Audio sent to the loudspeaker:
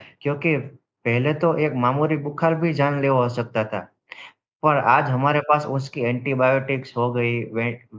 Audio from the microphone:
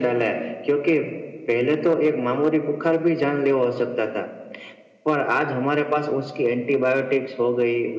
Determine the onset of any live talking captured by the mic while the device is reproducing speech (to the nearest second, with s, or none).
none